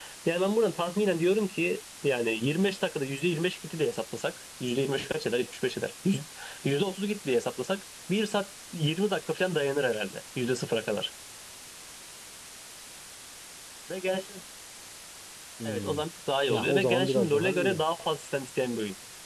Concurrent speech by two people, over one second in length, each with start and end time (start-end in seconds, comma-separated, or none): 16.5-17.8